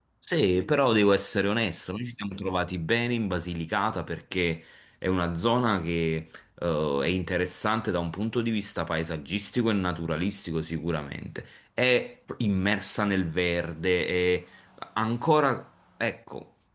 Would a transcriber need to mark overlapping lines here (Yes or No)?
No